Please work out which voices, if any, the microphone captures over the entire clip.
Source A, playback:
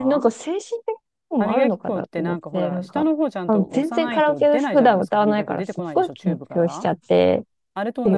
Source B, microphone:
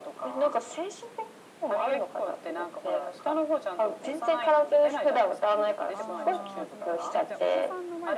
both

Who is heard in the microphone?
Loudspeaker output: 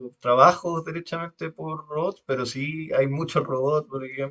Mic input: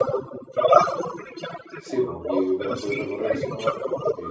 both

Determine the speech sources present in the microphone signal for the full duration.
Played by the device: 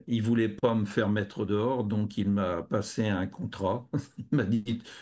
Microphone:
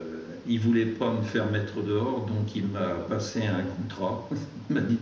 both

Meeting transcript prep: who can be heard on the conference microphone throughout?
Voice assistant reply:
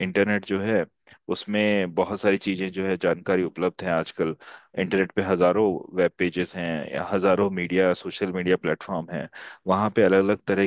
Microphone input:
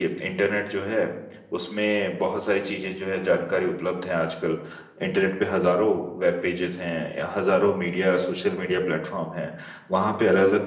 echo only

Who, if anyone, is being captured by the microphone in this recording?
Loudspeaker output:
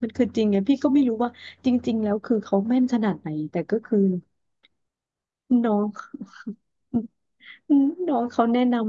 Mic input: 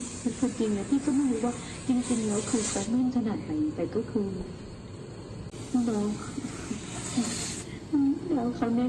echo only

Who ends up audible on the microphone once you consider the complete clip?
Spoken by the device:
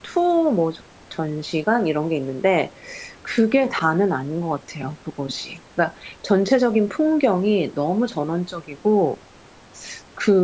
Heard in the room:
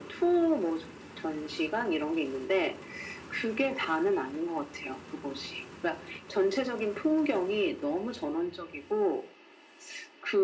echo only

